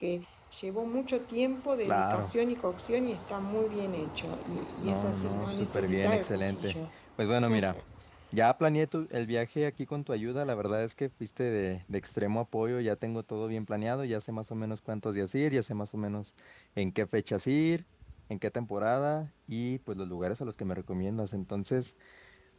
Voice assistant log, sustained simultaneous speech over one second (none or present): present